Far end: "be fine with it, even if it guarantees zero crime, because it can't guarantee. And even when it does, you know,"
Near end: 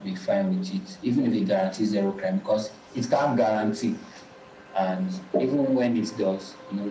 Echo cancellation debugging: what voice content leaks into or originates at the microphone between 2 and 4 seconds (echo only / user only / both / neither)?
echo only